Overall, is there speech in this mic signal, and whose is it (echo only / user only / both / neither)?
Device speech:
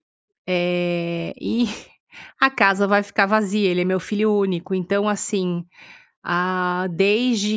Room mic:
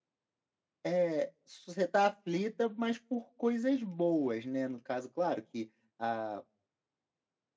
user only